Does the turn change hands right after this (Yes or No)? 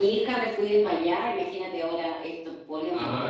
Yes